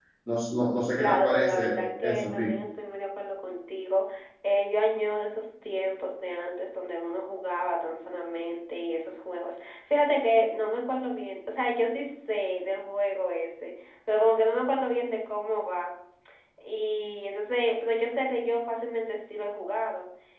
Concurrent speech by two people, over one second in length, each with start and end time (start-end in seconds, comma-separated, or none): 1.0-2.5